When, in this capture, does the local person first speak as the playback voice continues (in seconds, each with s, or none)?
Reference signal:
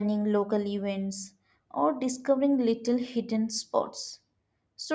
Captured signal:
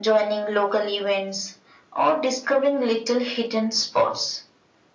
none